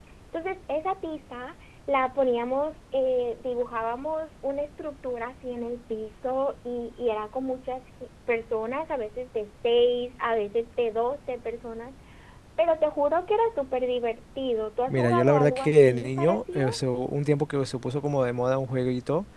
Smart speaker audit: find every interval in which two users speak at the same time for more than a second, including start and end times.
14.9-16.7

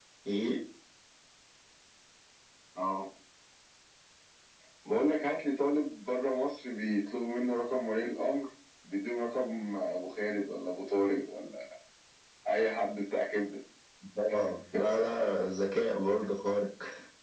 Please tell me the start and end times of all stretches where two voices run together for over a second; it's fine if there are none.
none

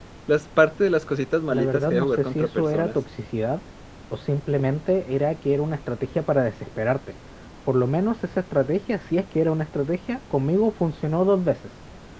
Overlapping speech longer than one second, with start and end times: 1.5-3.0

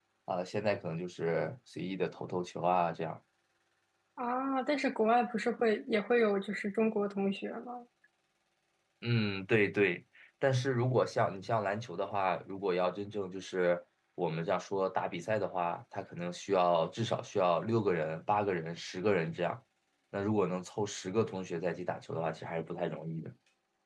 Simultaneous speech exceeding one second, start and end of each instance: none

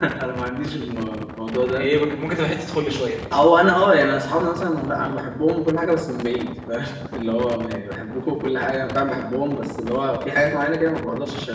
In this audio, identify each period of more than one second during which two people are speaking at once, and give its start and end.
none

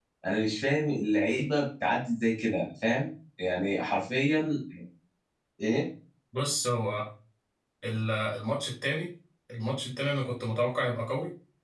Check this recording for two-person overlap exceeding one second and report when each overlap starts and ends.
none

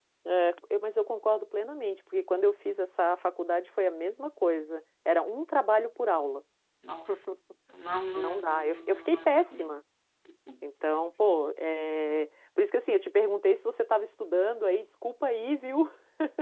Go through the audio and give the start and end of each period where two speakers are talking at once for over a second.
8.2-9.4

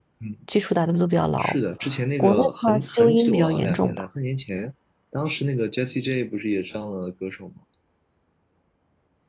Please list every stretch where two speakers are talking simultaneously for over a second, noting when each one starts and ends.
2.2-4.0

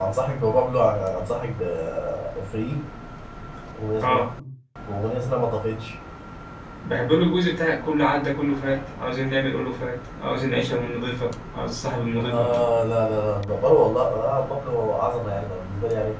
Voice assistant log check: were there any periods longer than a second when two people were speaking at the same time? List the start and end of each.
none

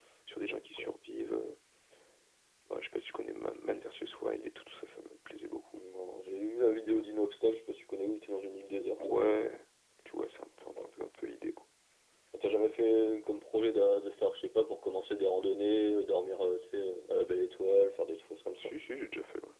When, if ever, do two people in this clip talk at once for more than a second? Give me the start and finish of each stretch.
none

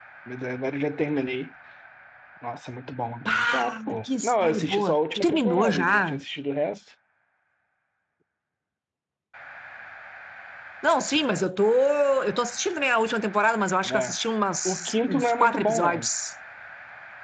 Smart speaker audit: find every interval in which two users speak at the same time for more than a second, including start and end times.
3.2-6.2, 14.7-16.1

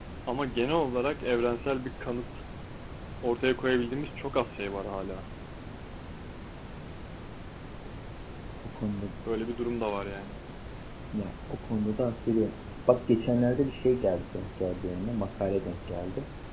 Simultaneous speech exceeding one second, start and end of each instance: none

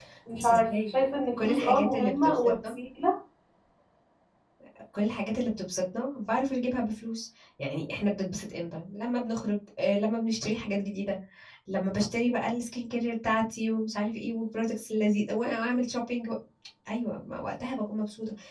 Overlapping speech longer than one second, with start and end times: 1.4-2.8

